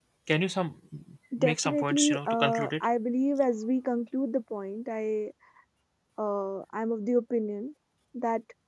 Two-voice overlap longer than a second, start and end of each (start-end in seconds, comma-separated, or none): 1.4-2.9